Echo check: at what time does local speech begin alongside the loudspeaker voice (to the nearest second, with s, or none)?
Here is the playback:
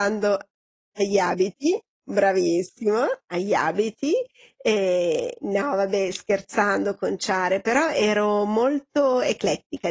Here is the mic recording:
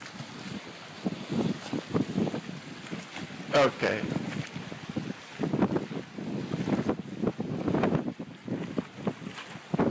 4 s